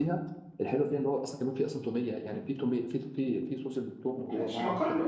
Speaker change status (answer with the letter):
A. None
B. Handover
B